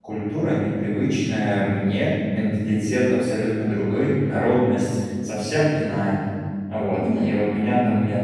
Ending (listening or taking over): listening